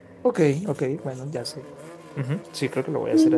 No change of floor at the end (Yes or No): No